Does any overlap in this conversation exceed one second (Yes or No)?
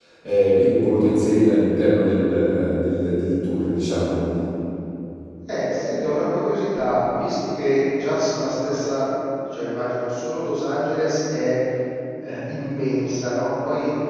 No